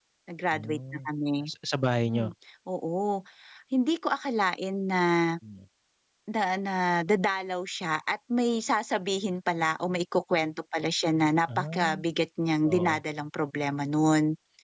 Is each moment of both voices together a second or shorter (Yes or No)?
Yes